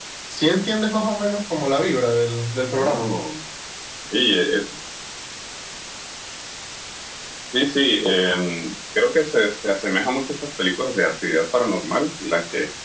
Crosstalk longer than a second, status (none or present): none